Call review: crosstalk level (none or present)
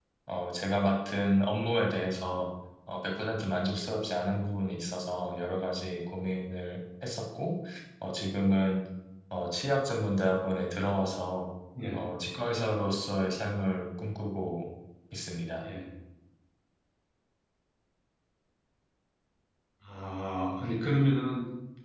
none